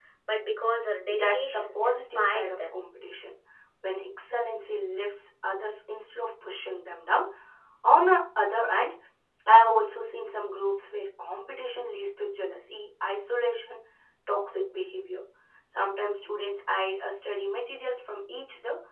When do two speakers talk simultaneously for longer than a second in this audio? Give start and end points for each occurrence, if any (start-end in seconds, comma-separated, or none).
1.1-2.8